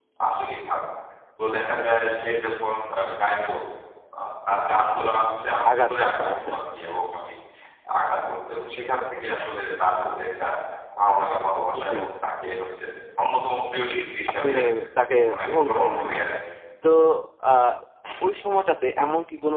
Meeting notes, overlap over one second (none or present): present